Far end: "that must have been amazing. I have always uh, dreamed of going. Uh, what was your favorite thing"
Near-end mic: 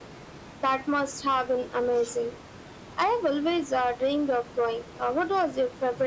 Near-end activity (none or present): none